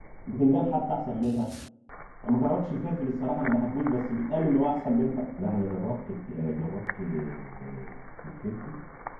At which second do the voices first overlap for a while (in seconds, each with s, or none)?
none